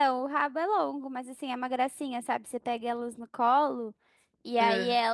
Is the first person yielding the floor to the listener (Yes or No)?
No